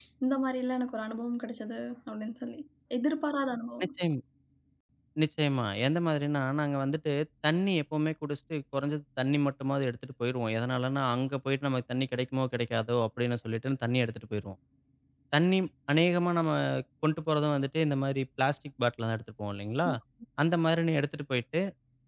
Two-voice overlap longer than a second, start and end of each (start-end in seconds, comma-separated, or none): none